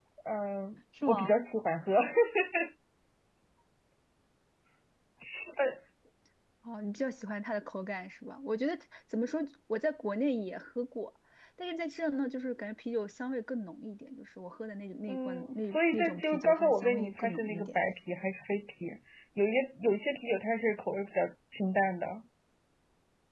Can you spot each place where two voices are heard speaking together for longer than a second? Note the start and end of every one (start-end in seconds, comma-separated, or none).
15.1-17.8